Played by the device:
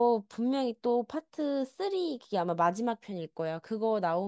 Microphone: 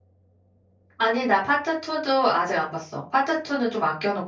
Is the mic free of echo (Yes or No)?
Yes